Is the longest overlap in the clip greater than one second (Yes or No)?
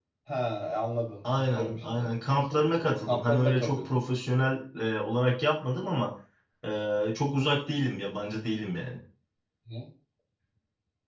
Yes